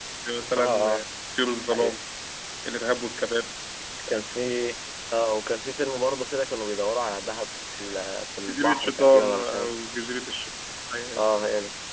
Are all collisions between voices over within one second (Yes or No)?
No